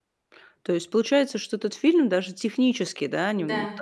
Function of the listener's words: listening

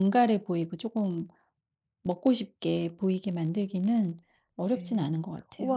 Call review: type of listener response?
taking over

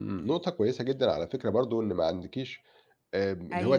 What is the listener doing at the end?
listening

